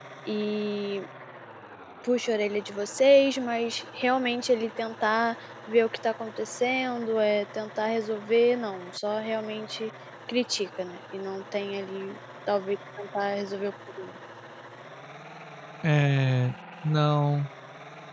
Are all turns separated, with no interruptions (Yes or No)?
Yes